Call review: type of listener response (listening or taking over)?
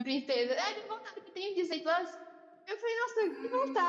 listening